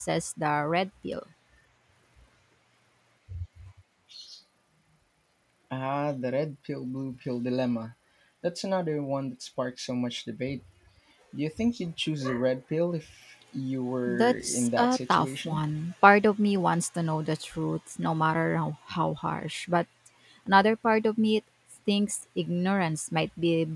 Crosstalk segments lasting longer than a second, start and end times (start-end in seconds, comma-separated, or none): 14.1-15.6